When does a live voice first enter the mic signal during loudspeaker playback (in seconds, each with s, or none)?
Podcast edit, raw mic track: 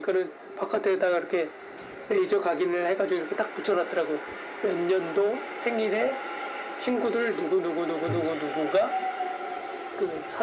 8.0 s